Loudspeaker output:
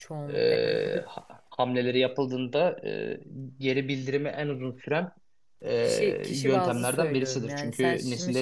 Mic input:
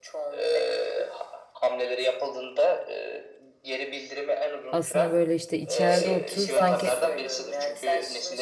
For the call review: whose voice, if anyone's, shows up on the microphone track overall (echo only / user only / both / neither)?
both